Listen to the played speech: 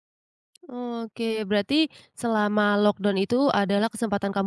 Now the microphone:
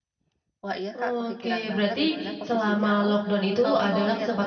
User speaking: Yes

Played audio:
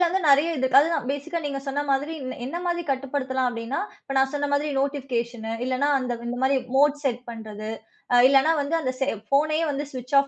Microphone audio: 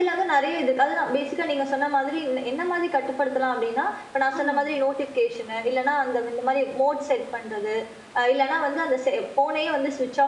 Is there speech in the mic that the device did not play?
Yes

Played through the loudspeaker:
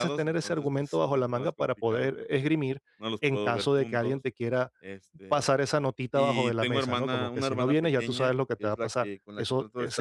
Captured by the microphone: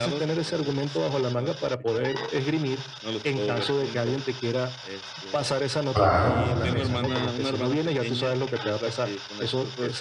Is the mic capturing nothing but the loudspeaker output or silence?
No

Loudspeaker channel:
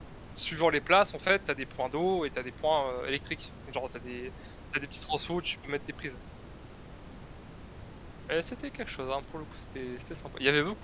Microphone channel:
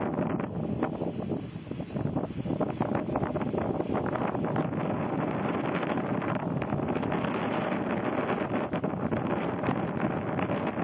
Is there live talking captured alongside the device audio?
No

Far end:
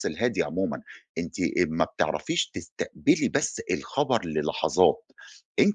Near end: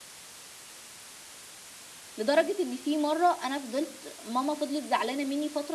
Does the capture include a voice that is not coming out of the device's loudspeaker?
Yes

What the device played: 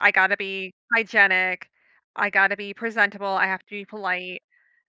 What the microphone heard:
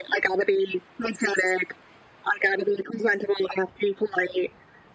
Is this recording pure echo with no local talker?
Yes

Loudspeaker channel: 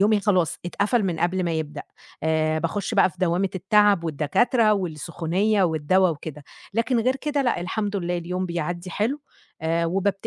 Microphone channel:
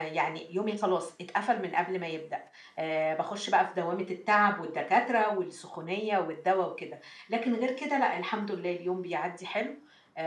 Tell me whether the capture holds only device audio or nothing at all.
Yes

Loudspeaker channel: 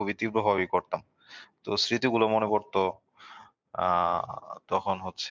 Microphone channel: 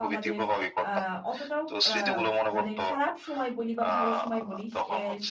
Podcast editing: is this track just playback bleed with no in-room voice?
No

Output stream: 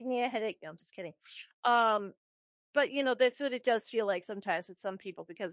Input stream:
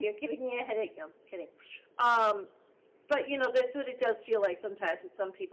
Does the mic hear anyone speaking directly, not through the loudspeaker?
No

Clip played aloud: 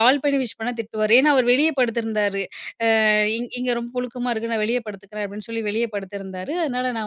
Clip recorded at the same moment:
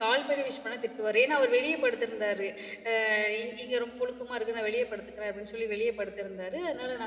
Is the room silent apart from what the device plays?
Yes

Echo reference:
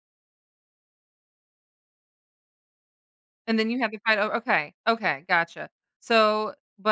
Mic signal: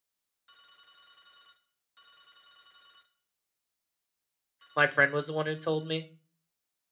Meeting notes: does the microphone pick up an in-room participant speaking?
Yes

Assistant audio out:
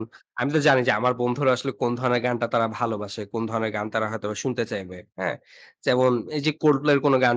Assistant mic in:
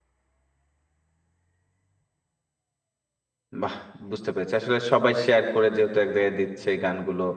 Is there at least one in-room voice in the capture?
Yes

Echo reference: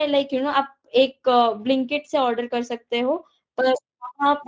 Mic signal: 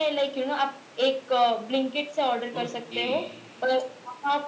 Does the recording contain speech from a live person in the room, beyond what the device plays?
Yes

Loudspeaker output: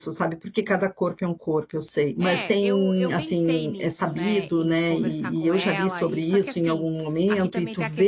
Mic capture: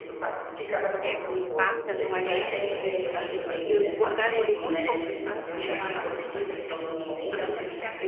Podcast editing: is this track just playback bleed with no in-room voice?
No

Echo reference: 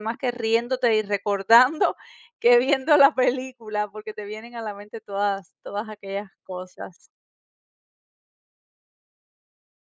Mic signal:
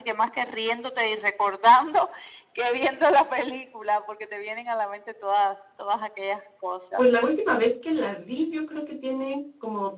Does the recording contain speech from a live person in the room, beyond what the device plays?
Yes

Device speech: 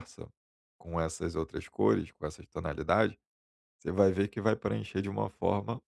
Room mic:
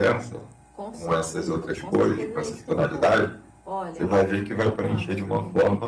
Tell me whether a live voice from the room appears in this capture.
Yes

